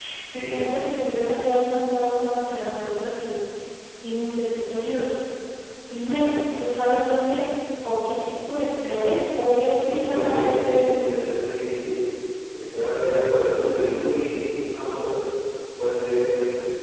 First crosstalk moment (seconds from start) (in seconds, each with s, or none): 9.8 s